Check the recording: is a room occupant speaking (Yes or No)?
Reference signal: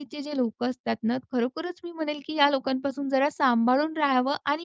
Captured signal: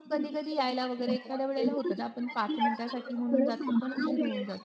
Yes